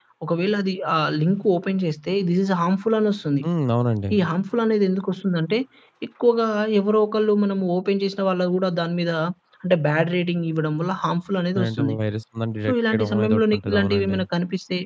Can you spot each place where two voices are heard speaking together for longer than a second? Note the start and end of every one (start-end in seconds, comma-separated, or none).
12.7-14.2